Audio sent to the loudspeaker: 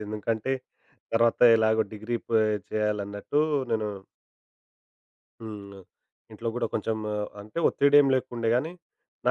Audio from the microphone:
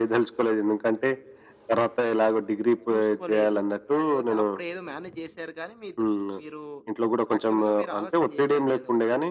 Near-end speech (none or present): present